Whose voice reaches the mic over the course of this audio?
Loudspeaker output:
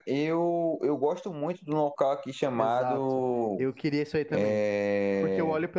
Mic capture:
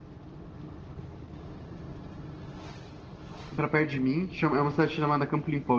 user only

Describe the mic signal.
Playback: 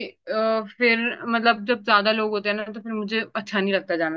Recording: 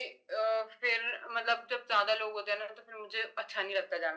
echo only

